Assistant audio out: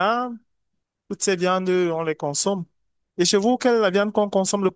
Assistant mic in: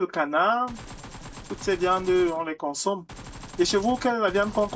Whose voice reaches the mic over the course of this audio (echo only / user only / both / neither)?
echo only